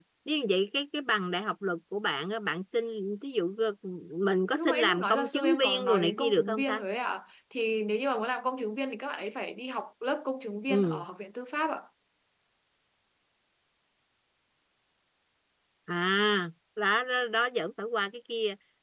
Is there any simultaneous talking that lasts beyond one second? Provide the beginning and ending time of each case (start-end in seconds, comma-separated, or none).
4.6-6.8